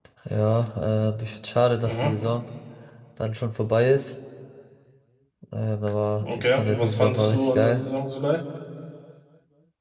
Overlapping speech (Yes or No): Yes